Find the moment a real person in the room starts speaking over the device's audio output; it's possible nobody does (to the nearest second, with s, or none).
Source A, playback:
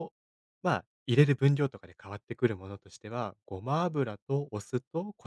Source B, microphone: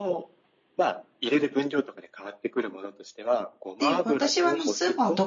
4 s